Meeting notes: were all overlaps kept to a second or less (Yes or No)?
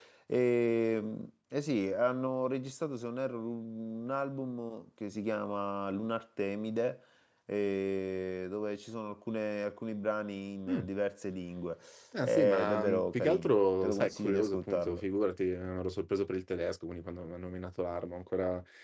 No